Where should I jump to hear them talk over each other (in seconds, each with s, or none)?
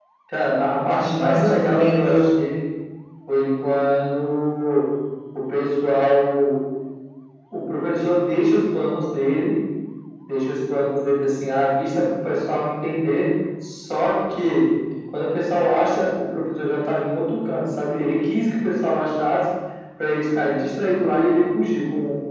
0.9 s